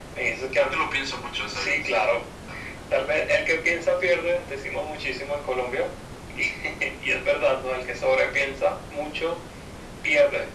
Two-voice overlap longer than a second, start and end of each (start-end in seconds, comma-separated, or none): none